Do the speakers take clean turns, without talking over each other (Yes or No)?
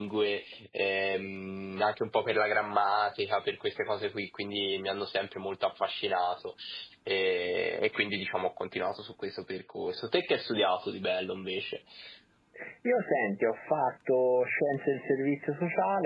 Yes